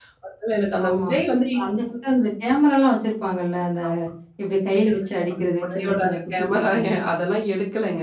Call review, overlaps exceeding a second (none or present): present